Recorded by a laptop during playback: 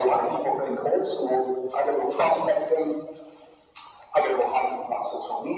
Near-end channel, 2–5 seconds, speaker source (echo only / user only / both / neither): echo only